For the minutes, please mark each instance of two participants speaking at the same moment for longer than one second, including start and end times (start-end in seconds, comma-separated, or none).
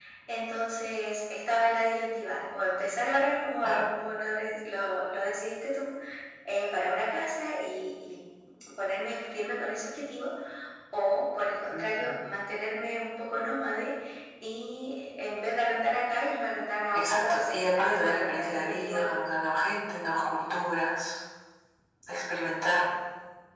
16.9-19.1